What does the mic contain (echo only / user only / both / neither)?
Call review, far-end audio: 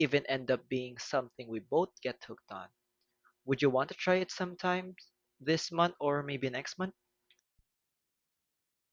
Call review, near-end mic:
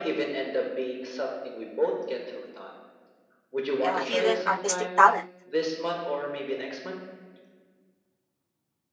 both